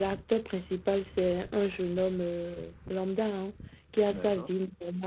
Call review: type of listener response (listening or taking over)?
listening